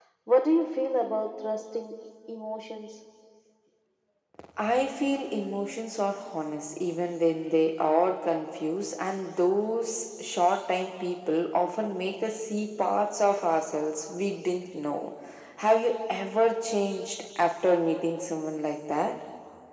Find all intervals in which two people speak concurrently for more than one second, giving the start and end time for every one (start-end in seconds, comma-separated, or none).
none